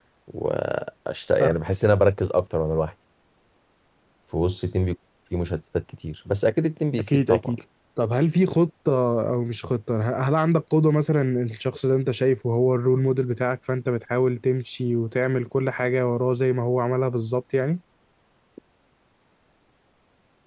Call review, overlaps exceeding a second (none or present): none